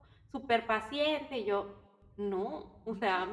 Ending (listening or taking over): listening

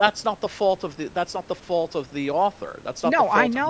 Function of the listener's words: taking over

